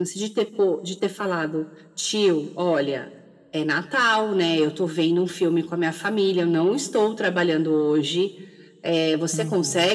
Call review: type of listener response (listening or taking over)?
listening